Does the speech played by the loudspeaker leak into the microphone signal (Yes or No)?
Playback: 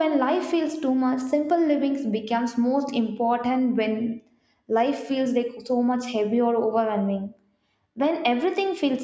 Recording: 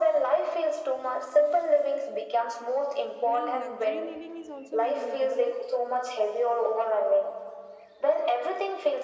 Yes